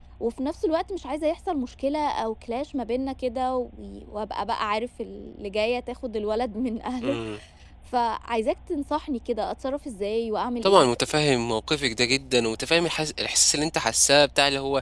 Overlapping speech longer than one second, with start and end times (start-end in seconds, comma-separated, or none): none